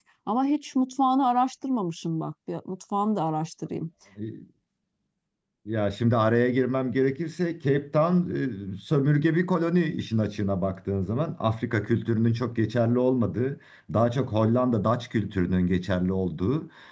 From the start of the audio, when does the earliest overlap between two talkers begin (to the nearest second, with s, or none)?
none